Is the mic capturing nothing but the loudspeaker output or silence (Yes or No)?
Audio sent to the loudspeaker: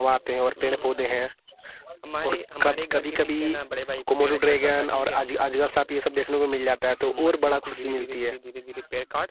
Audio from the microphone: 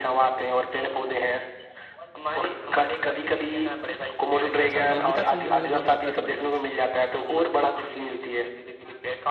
No